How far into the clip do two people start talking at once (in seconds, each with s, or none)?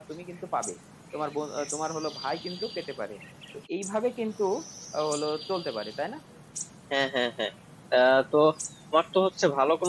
none